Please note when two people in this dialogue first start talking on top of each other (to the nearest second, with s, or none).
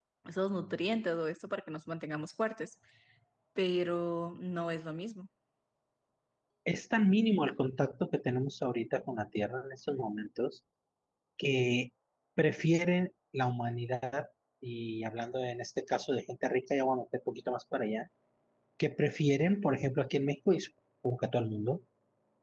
none